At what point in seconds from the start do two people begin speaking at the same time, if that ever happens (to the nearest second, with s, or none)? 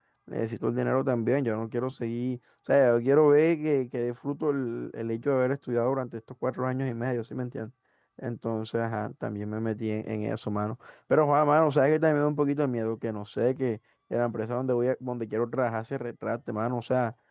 none